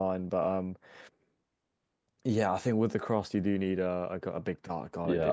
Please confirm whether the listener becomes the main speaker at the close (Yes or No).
Yes